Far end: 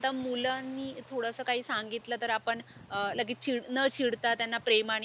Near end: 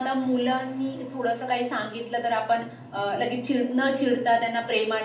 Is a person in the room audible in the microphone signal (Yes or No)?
No